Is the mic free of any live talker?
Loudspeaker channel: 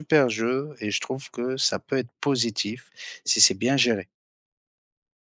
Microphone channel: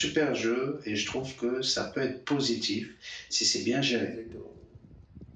No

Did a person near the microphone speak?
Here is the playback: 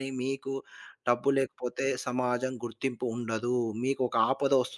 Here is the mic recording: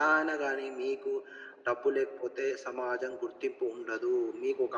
No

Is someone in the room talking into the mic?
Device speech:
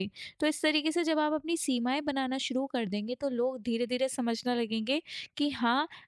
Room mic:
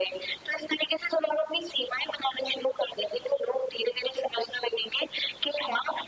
No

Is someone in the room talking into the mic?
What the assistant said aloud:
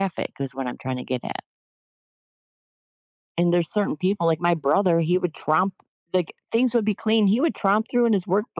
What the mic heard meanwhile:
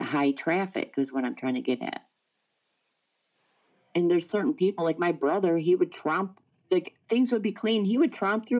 No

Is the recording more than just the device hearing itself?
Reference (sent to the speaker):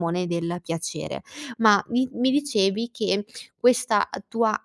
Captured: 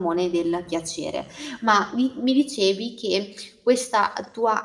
No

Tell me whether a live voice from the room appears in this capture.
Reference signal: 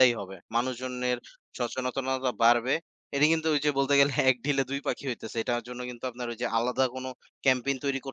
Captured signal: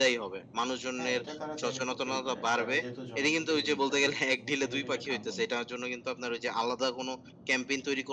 Yes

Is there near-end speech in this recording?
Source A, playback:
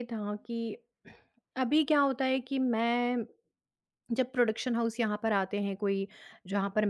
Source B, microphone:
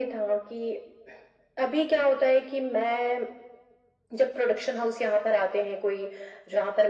No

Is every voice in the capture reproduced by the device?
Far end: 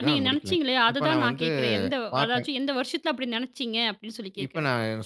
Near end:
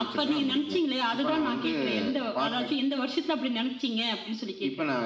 Yes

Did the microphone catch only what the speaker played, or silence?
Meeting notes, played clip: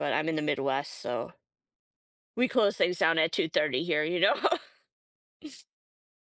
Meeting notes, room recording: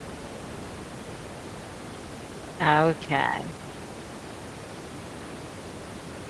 No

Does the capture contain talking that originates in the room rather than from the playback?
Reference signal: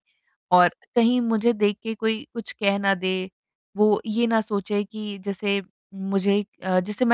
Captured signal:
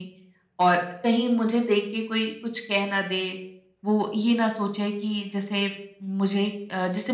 No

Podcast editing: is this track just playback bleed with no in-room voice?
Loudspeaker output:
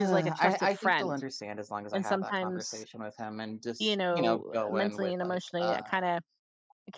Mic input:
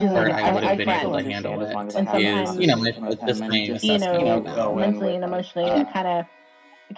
No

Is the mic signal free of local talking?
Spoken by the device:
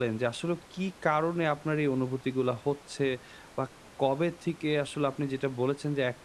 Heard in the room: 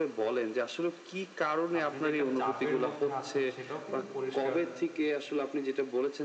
No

